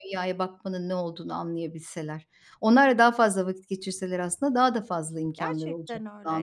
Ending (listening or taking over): taking over